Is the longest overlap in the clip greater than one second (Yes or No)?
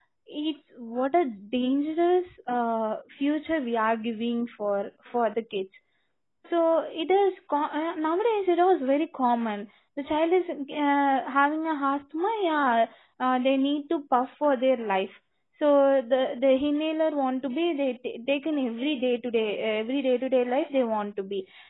No